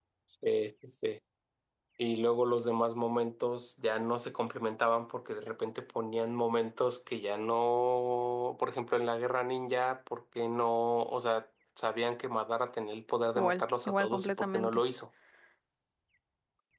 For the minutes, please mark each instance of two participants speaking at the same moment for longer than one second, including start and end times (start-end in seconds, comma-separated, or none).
13.3-14.8